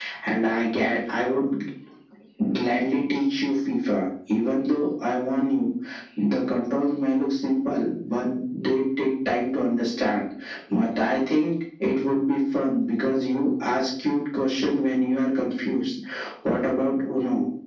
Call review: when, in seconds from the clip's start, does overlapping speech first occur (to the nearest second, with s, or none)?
none